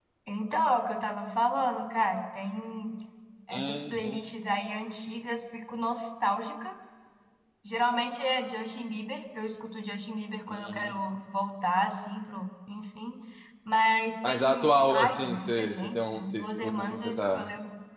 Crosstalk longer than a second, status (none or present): present